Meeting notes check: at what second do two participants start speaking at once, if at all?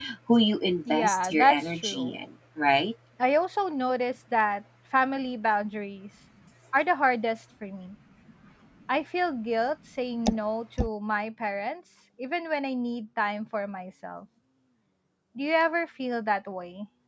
0.9 s

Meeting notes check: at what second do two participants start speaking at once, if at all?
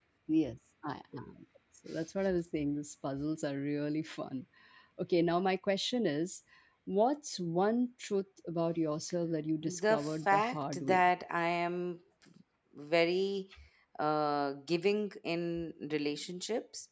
9.6 s

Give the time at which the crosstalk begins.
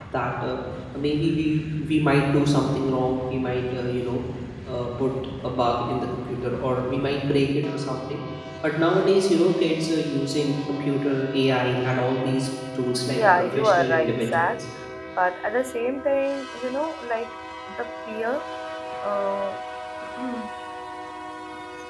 13.1 s

